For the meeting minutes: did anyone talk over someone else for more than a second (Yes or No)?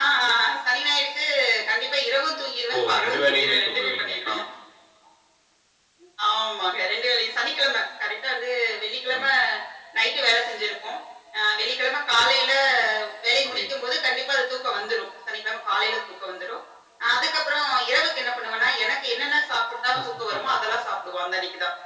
Yes